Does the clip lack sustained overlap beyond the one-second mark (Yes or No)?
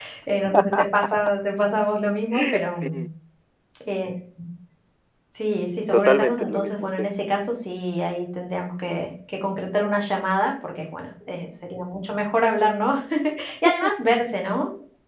No